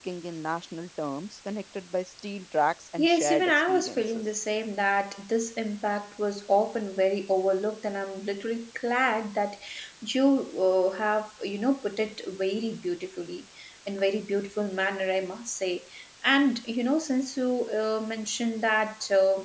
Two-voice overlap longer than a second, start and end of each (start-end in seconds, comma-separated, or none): 3.0-4.2